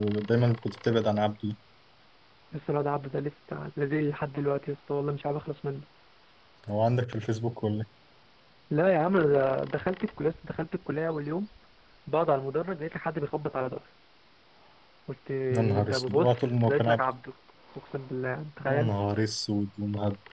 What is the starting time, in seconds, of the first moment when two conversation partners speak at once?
15.5 s

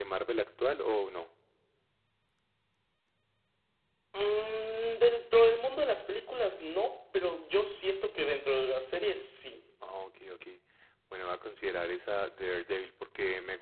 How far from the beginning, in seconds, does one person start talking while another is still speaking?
none

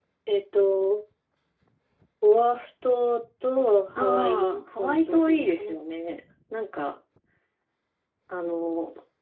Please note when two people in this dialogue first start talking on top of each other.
4.0 s

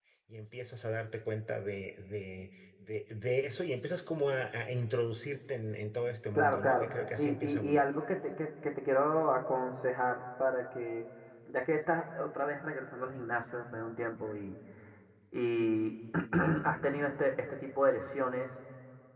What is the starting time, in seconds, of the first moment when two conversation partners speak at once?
6.3 s

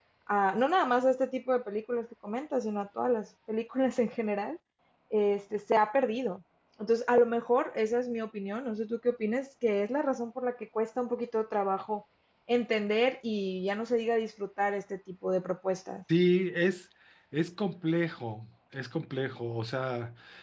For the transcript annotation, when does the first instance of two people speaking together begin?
none

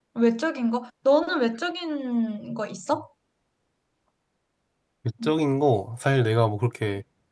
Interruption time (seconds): none

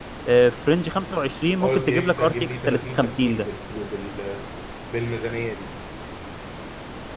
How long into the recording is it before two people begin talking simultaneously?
1.6 s

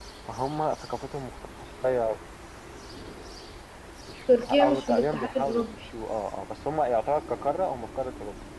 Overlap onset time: 4.4 s

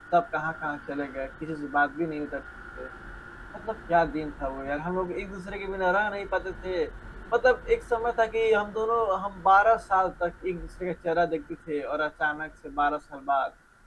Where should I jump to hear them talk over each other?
none

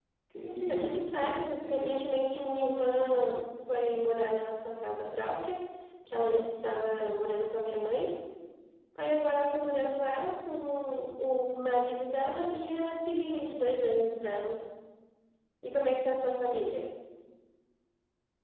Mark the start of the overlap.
0.6 s

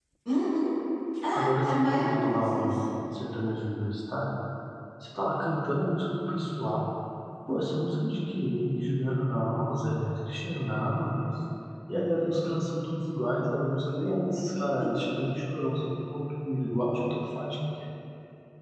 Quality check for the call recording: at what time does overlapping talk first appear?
1.4 s

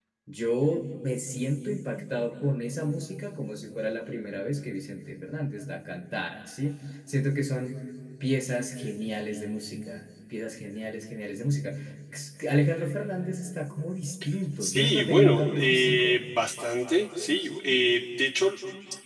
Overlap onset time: 14.6 s

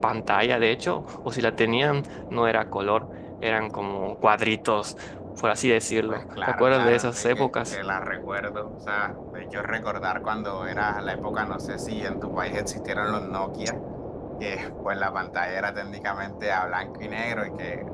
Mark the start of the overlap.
6.1 s

